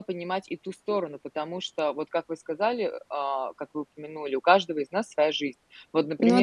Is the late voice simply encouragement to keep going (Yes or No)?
Yes